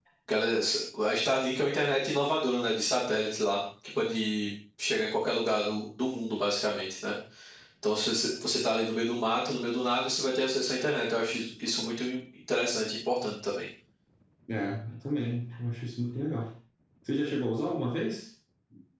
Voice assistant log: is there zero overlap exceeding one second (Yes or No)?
Yes